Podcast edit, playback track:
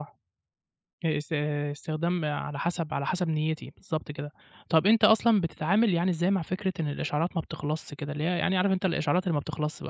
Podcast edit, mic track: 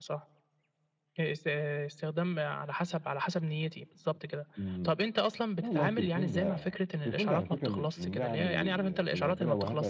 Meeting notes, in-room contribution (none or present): present